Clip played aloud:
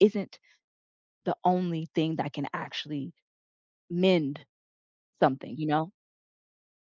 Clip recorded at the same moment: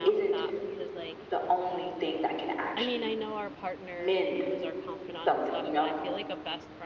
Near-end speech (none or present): present